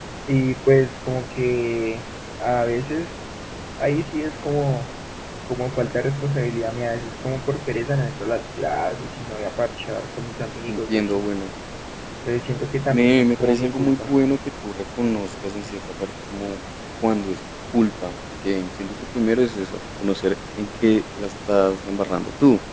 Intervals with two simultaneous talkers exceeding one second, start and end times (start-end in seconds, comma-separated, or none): 12.9-14.1